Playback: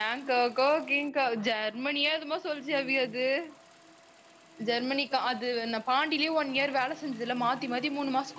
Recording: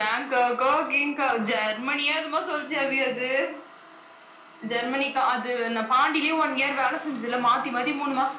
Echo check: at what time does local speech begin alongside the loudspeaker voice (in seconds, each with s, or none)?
none